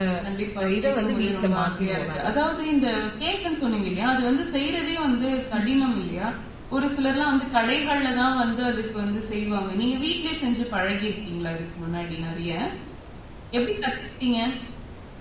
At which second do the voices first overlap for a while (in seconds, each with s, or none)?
0.6 s